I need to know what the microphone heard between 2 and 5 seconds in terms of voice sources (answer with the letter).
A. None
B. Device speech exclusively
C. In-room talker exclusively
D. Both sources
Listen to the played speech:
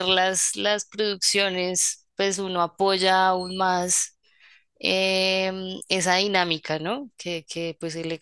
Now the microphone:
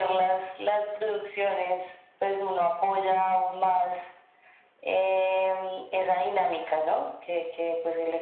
B